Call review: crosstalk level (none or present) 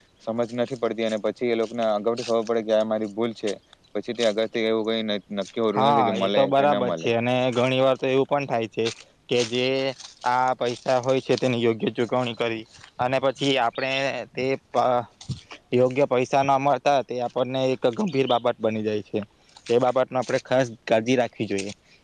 present